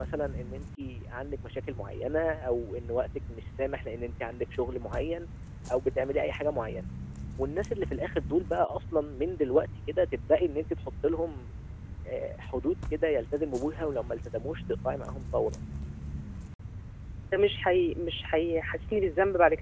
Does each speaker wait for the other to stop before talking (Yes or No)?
Yes